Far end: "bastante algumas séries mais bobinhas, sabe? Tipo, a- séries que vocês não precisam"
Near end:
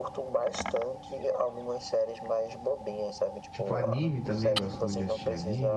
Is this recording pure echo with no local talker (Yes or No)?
No